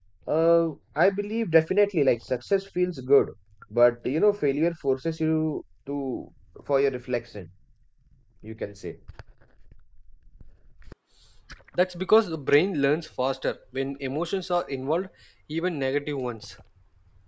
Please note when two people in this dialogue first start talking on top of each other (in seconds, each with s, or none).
none